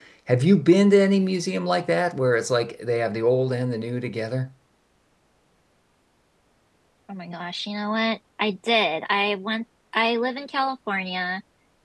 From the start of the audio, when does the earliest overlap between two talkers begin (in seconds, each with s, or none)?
none